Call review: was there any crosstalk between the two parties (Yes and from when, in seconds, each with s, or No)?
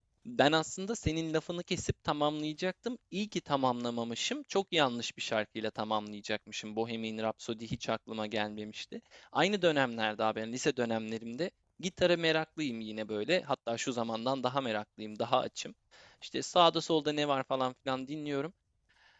No